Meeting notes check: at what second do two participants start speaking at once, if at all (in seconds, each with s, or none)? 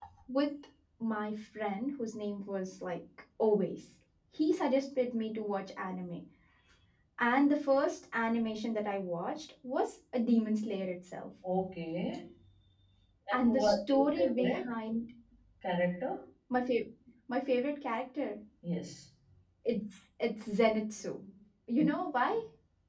13.3 s